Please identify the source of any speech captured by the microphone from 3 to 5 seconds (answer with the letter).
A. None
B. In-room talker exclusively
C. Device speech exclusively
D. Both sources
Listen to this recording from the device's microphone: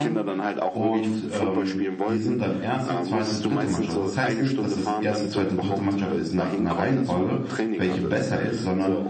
D